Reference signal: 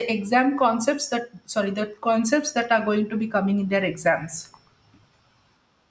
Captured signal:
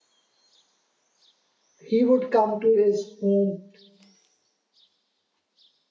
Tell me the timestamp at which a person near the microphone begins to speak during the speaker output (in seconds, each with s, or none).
1.9 s